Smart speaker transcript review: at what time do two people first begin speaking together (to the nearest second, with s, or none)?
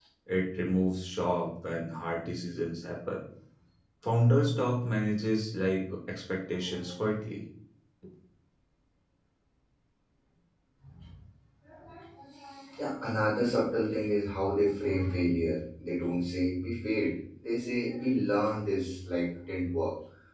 none